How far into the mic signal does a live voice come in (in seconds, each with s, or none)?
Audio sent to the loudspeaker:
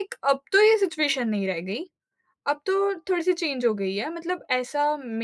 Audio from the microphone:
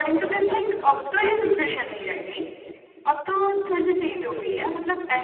none